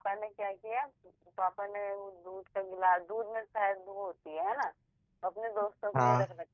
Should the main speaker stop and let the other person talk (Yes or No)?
No